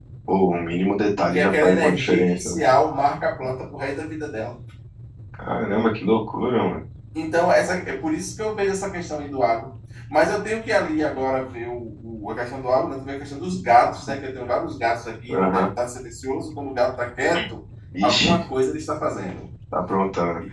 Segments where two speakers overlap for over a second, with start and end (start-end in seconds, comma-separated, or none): 1.2-2.6